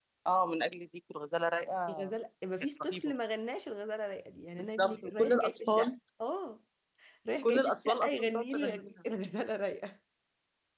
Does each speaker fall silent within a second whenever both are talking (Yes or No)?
No